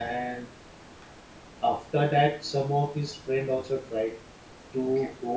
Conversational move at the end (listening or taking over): listening